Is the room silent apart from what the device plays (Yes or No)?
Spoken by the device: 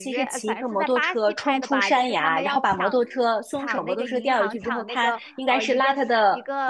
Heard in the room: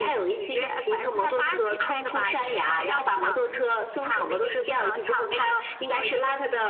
Yes